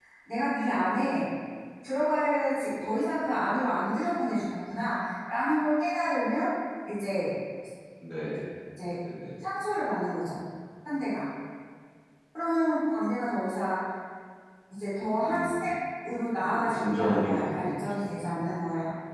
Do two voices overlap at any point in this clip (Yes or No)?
Yes